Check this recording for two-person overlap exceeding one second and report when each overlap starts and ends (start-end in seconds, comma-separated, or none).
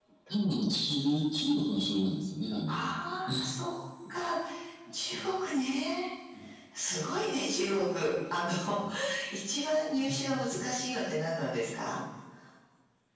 none